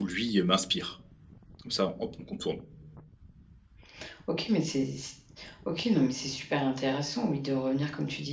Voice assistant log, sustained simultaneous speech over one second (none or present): none